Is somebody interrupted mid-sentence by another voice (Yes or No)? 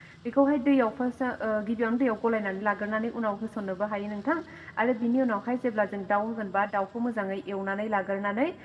No